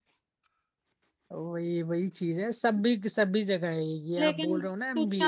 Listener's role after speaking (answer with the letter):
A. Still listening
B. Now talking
B